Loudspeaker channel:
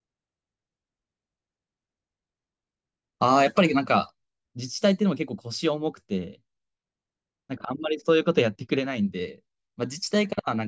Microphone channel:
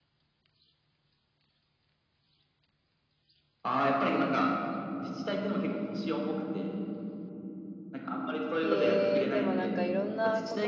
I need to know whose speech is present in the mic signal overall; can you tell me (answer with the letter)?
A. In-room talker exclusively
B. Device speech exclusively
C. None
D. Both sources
D